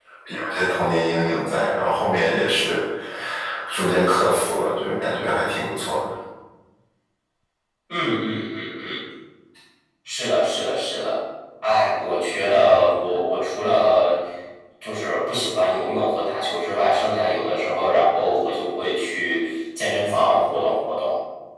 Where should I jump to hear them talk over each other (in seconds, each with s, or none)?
none